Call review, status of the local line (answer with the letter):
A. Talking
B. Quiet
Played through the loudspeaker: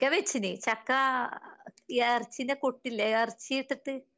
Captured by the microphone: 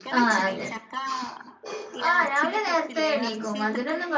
A